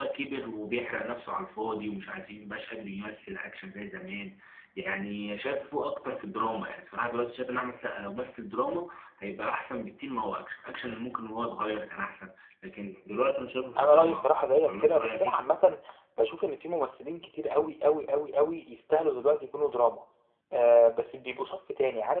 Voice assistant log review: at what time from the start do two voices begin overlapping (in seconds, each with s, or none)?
13.8 s